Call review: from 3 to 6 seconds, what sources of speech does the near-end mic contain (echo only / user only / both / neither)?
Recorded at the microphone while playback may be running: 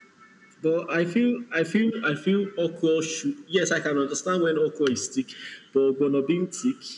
echo only